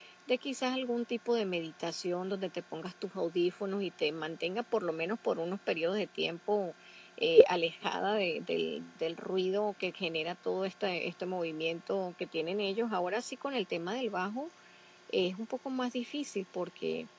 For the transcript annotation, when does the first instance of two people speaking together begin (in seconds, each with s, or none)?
none